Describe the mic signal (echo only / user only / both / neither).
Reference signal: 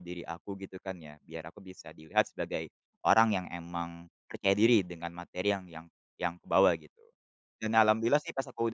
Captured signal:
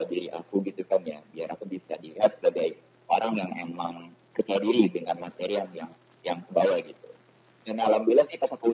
echo only